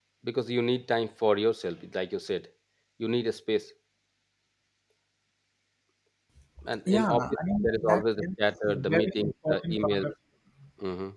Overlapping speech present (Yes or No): Yes